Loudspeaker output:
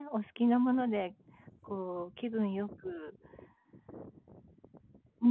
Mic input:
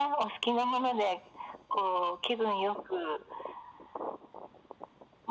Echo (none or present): present